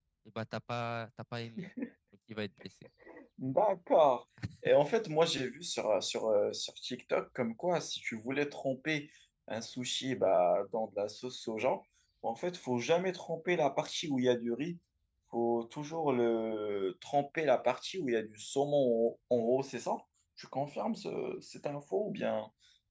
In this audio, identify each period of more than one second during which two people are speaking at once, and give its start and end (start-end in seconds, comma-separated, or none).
none